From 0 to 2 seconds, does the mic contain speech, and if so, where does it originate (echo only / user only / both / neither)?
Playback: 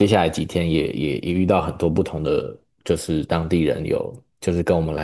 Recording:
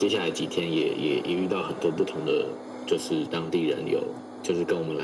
echo only